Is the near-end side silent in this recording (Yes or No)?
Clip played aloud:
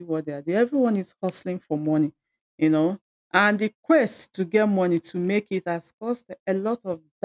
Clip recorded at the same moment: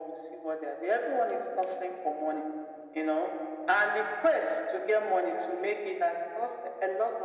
Yes